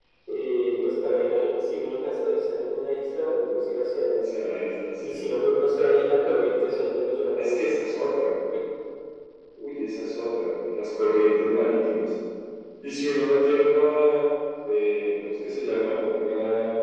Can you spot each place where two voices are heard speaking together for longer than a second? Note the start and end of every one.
none

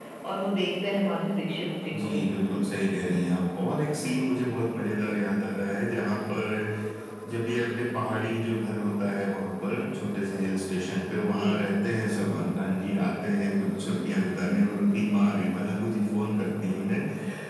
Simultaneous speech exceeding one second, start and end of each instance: none

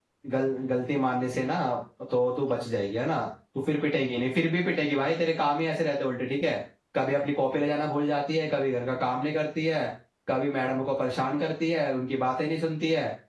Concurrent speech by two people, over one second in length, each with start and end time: none

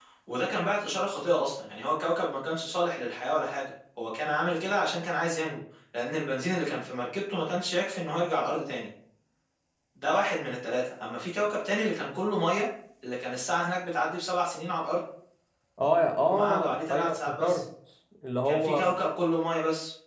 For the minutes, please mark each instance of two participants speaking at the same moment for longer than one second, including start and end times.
16.2-17.6

